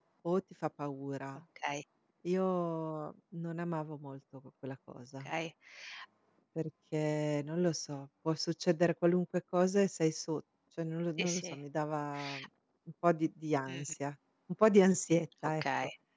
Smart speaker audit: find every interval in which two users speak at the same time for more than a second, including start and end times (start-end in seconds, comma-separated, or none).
none